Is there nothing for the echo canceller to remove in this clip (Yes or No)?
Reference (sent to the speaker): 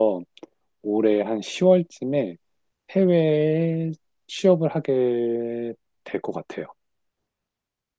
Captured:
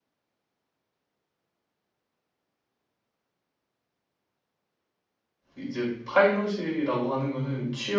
Yes